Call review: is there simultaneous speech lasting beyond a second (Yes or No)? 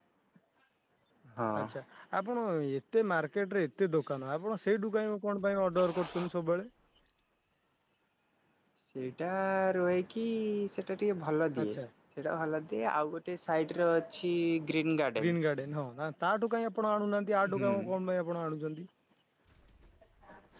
No